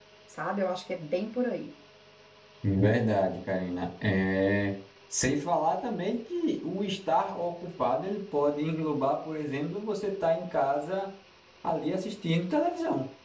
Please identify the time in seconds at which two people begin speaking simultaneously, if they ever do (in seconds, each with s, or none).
none